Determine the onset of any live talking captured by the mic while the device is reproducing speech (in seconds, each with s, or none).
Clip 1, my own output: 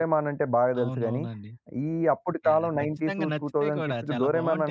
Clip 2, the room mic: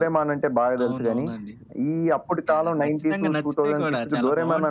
none